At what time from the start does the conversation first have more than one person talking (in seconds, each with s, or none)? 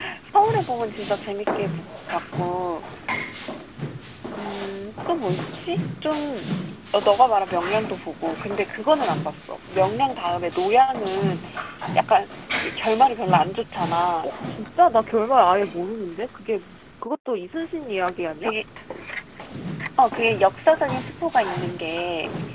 none